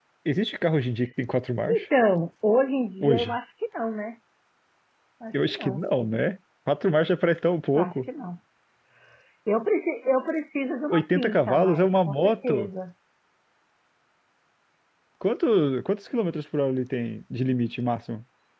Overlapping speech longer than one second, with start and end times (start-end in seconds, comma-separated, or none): 10.9-12.7